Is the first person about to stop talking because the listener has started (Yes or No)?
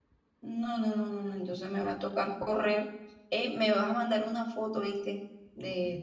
No